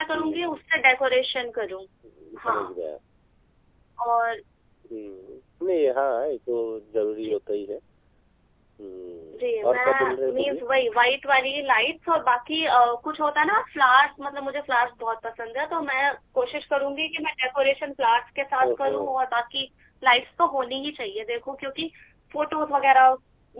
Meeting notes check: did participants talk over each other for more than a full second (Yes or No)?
Yes